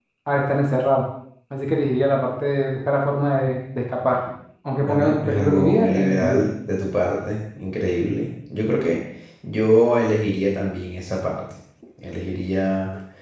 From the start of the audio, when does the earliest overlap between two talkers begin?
5 s

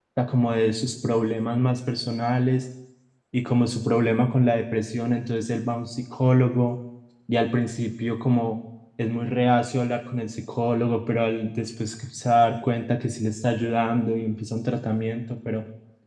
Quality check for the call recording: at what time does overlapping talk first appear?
none

